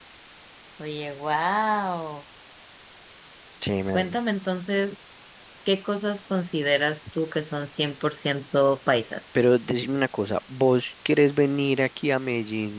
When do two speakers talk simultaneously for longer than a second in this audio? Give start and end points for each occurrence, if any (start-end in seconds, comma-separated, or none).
none